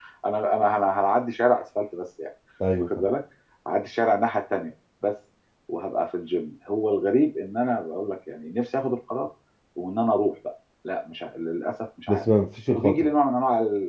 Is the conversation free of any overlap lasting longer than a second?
Yes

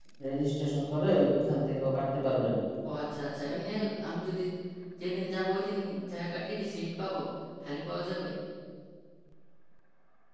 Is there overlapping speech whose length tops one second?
No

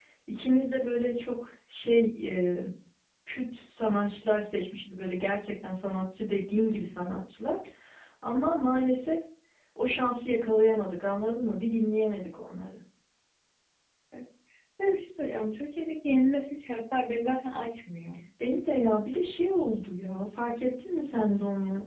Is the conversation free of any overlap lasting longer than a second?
Yes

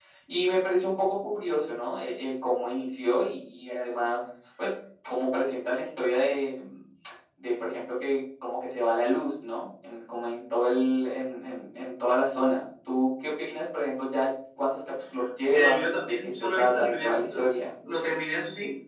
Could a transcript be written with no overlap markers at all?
No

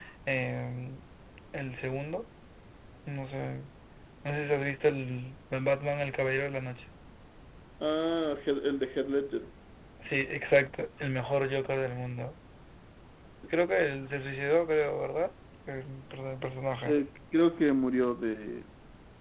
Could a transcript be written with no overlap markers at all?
Yes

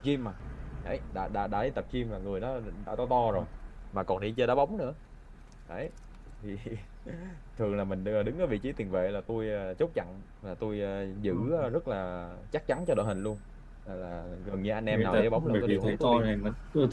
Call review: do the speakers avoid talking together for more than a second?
No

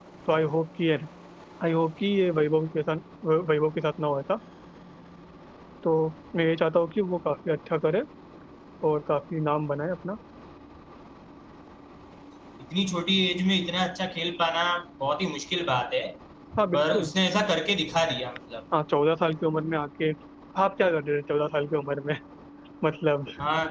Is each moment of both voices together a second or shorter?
Yes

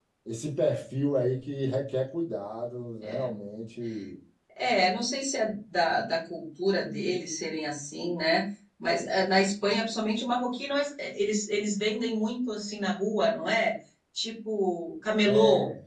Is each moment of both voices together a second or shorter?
Yes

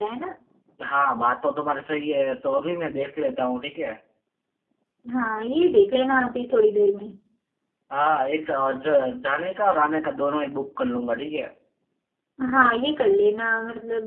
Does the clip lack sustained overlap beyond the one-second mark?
Yes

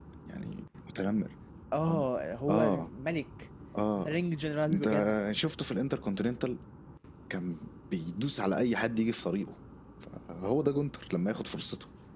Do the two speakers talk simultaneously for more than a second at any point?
No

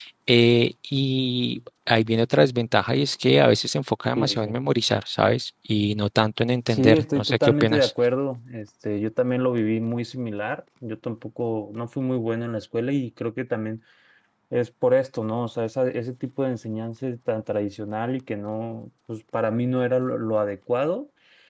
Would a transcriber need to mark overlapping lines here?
Yes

